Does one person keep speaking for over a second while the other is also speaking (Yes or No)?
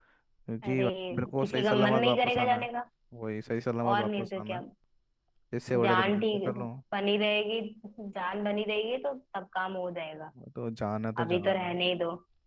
Yes